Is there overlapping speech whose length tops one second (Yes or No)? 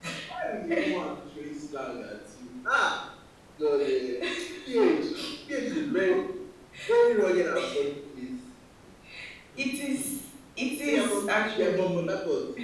Yes